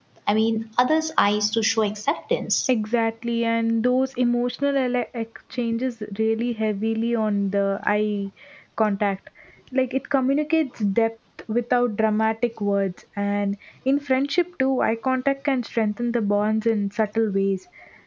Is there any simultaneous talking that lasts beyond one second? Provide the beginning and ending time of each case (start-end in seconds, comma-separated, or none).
none